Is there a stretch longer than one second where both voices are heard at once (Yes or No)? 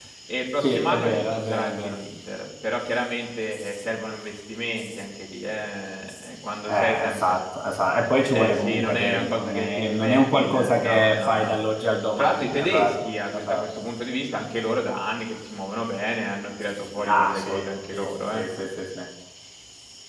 Yes